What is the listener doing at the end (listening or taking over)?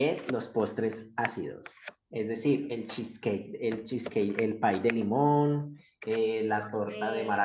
listening